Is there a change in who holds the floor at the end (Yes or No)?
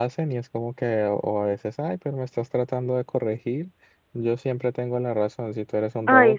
No